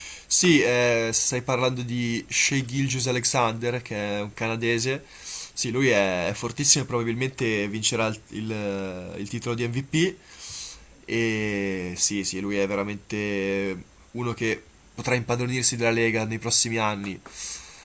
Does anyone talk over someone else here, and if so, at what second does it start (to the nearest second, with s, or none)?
none